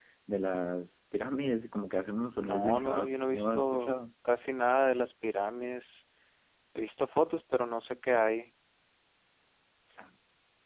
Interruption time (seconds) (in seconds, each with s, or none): 2.4 s